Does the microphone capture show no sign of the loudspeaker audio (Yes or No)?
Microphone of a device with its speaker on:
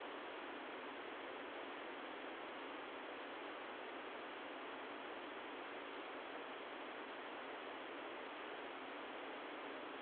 Yes